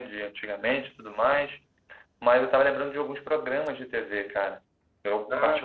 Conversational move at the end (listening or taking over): listening